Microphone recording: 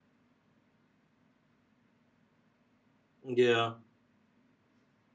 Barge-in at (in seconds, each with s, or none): 3.2 s